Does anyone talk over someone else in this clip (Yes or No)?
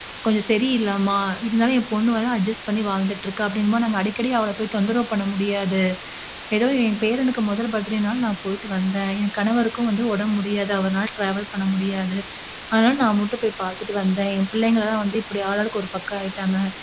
No